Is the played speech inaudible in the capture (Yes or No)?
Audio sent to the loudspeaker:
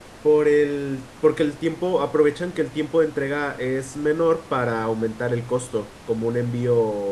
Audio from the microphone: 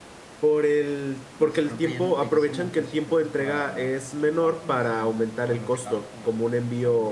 No